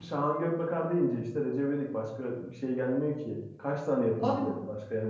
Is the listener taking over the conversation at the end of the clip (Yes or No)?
No